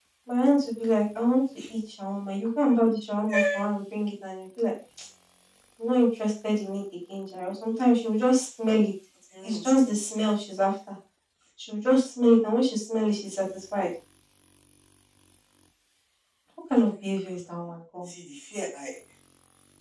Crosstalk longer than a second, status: none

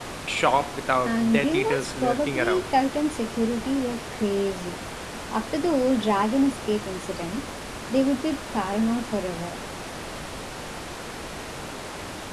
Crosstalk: present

